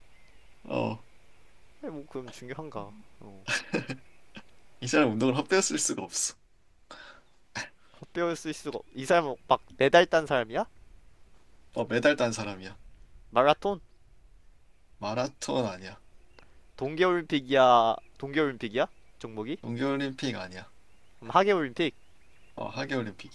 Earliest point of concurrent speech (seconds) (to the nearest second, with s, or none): none